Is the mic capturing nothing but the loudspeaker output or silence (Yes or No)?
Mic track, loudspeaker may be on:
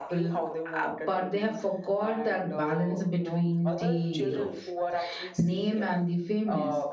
No